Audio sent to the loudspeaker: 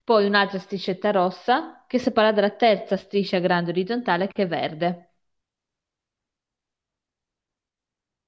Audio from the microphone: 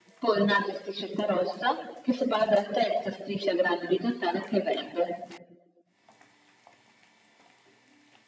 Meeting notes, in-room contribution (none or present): none